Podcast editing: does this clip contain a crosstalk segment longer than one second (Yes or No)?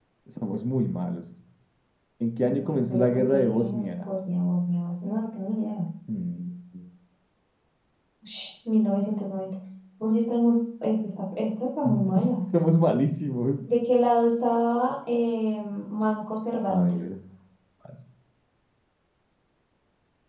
Yes